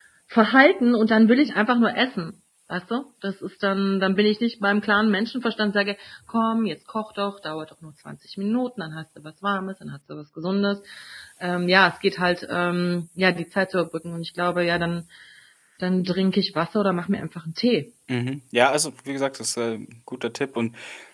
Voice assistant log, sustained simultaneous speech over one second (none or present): none